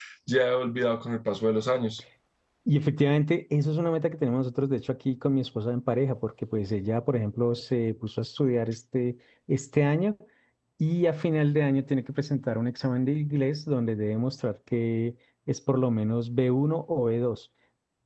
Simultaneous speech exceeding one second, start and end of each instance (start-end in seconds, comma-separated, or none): none